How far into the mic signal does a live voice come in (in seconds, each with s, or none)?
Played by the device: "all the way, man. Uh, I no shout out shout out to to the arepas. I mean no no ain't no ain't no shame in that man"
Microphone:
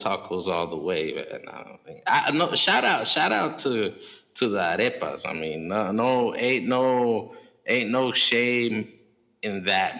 none